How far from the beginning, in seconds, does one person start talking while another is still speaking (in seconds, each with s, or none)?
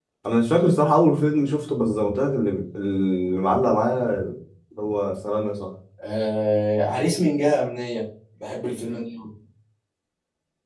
none